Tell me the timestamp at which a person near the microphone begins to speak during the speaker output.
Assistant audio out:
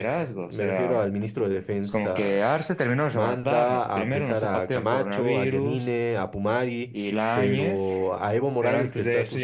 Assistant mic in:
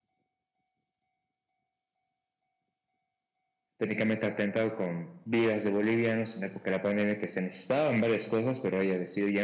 3.8 s

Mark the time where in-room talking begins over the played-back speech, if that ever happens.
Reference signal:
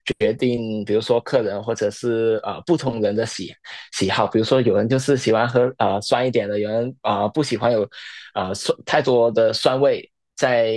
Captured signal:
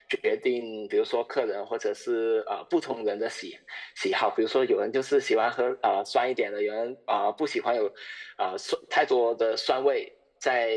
none

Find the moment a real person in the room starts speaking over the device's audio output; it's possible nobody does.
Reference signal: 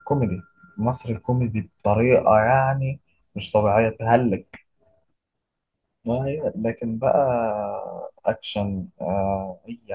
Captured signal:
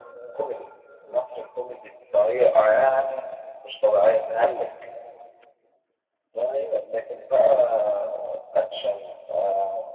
none

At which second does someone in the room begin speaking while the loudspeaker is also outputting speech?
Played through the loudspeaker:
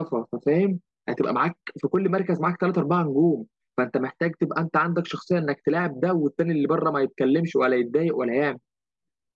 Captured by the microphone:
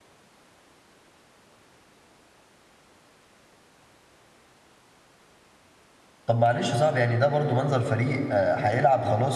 6.2 s

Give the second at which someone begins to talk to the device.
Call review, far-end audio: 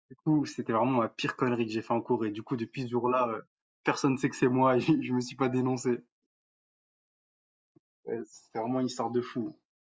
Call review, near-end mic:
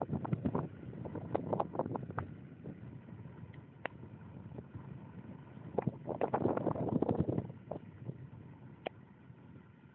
none

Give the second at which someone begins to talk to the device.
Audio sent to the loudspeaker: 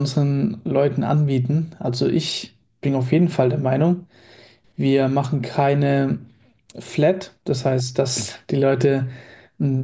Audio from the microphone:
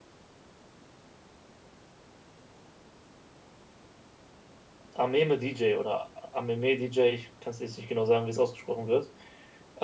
4.9 s

